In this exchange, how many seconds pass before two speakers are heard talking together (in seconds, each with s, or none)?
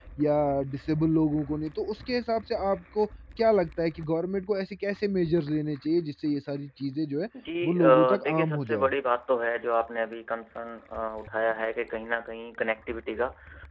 7.6 s